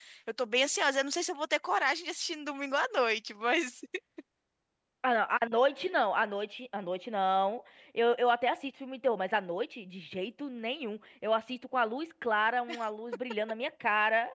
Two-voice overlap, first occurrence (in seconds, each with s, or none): none